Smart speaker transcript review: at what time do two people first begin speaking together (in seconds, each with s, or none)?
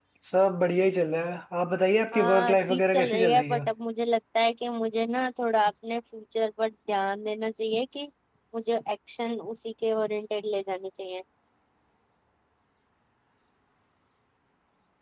2.1 s